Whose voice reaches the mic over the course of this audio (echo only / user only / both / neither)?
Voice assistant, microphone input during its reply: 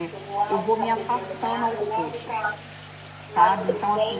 both